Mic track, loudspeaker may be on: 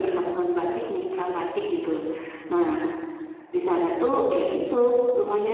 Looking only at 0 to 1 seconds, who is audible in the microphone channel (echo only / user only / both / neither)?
echo only